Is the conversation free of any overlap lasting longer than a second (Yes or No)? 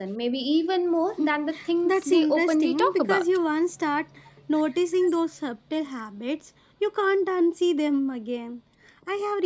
No